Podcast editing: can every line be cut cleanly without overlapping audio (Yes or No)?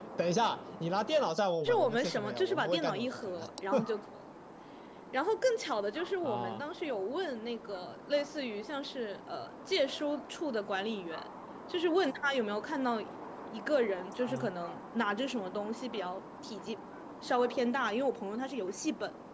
No